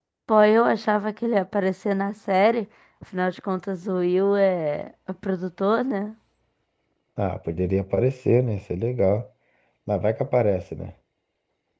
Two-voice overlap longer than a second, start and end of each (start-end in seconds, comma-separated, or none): none